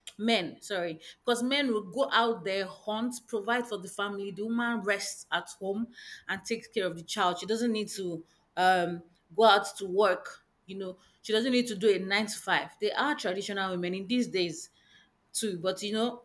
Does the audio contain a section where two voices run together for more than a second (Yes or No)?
No